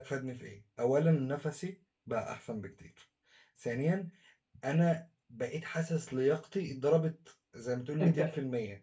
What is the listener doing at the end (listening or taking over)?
taking over